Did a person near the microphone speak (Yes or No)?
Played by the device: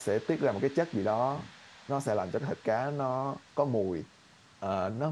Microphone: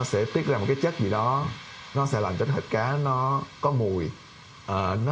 No